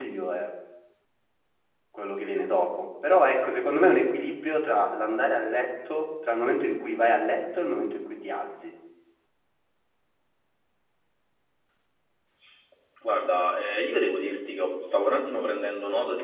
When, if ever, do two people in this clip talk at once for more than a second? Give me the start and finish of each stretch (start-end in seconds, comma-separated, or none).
none